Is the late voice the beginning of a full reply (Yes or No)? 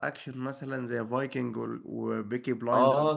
Yes